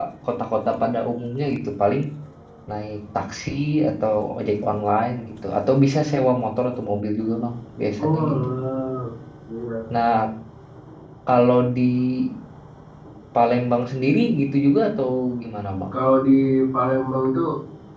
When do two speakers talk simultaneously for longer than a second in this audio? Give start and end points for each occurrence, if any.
none

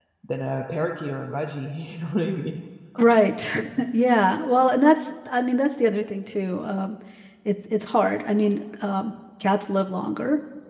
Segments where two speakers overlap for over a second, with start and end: none

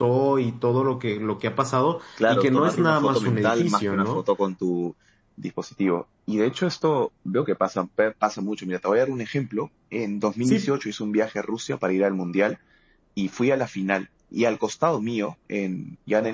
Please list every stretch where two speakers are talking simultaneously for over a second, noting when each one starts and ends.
2.3-4.2

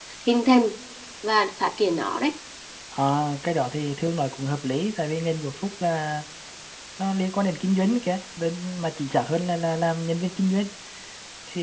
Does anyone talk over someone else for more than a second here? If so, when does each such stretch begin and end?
none

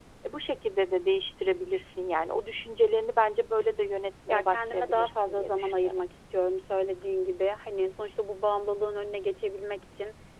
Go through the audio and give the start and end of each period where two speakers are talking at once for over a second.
4.3-6.0

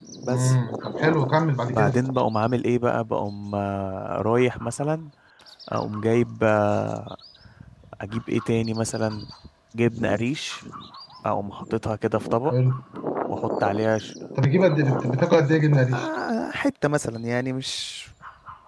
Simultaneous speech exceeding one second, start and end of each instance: none

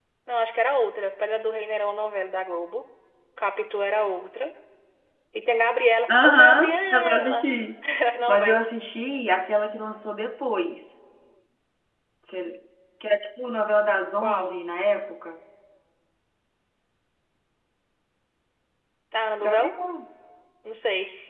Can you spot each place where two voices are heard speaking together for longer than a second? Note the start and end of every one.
6.2-7.4

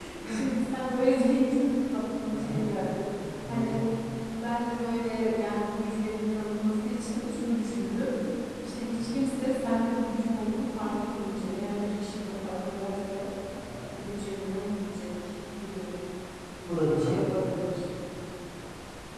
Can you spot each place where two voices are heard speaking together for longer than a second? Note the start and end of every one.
none

